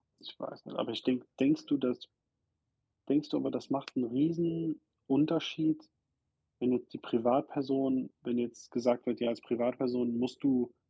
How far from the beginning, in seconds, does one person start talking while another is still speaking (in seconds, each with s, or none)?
none